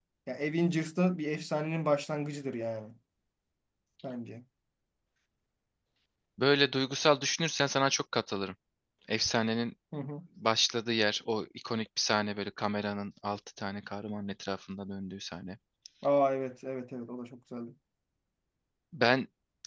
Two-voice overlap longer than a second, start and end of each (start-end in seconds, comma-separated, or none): none